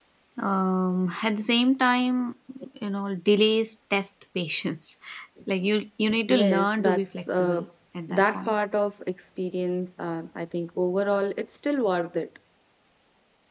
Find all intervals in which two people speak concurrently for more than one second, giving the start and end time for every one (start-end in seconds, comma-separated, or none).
6.3-7.6